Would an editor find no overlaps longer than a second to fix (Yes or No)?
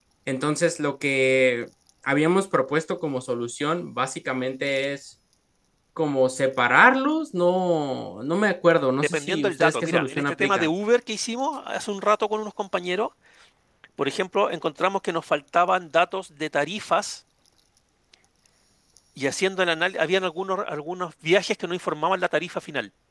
No